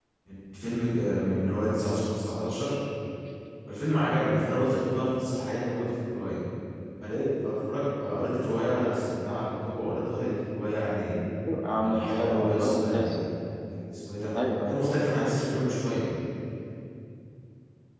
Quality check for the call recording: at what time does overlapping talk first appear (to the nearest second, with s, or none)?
12 s